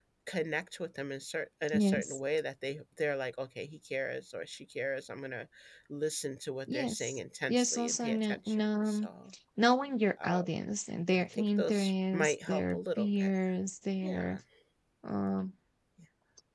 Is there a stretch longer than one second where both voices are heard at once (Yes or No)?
Yes